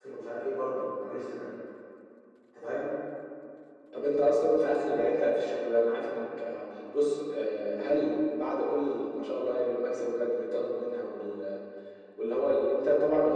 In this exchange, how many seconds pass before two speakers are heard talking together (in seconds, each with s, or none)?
none